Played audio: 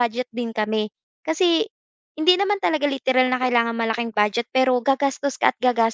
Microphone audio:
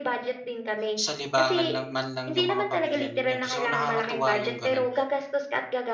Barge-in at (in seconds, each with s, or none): 0.9 s